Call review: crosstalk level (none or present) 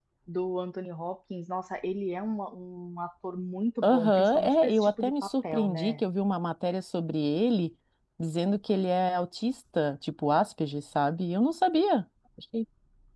present